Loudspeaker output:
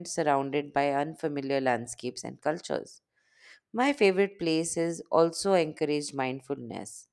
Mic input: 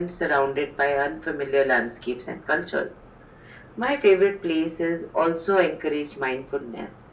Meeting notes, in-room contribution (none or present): none